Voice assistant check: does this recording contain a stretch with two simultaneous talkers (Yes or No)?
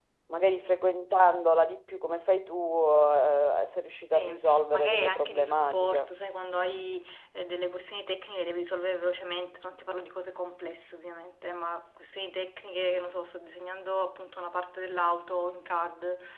Yes